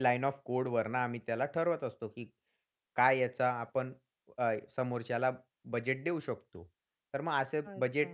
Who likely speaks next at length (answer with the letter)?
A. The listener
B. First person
B